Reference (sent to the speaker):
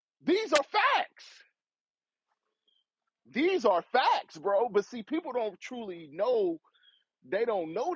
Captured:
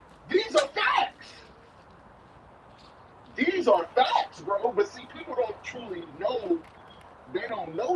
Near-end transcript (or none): none